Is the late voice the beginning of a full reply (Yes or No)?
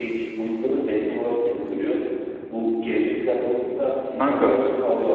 No